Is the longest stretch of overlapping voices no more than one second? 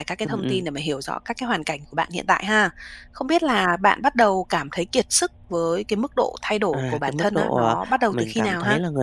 No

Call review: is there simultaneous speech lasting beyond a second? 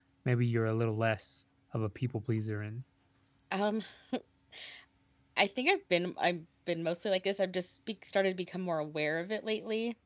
No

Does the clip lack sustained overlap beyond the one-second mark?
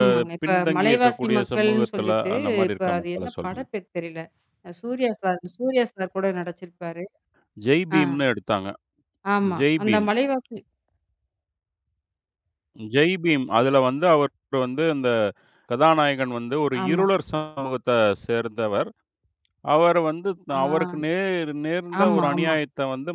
No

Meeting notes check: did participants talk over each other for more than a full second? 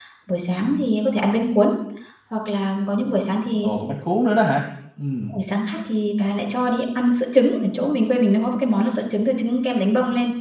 No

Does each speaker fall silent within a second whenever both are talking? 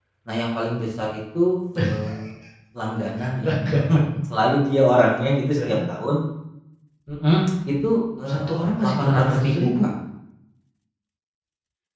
No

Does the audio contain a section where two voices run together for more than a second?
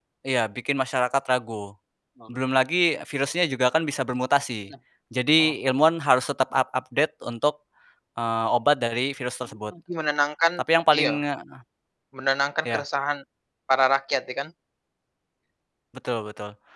No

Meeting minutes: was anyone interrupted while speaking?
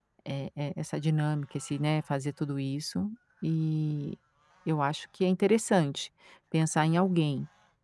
No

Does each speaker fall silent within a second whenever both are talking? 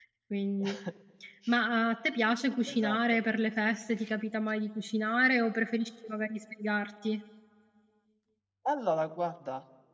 Yes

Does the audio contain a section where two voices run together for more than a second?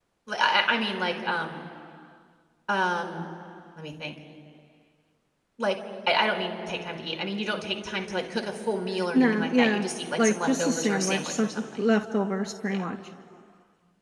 Yes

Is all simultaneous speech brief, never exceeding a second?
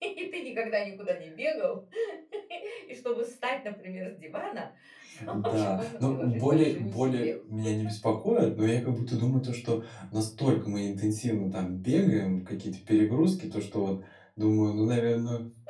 No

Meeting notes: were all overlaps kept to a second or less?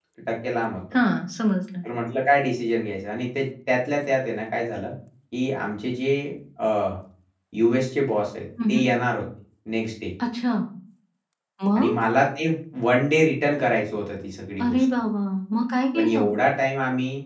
Yes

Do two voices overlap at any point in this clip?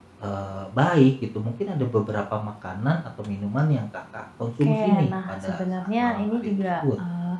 Yes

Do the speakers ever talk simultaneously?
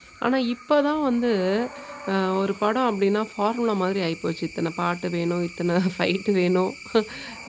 No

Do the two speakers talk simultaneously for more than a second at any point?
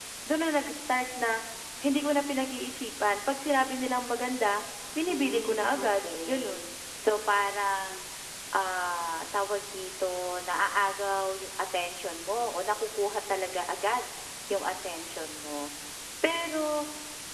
Yes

